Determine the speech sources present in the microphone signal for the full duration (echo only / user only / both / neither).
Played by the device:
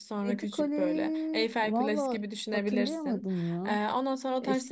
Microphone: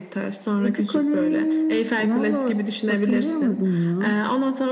echo only